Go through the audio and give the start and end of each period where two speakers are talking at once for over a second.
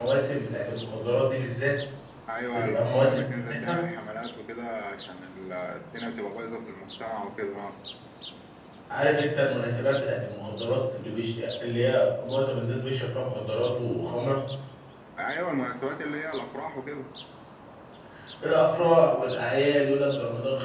2.5-3.8

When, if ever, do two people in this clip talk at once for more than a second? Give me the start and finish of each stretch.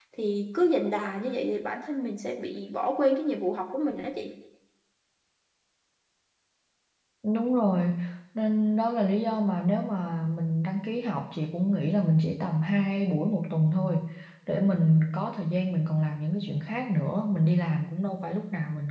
none

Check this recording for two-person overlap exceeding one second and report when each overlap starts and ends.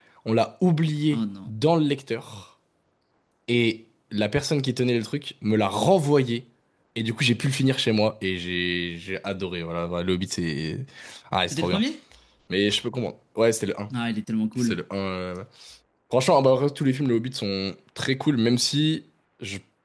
none

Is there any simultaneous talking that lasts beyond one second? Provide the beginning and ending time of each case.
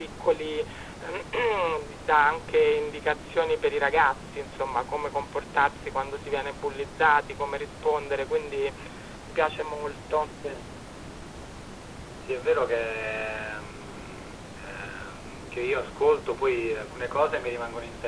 none

